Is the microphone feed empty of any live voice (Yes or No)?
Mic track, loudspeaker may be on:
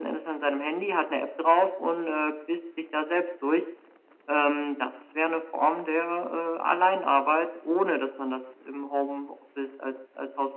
Yes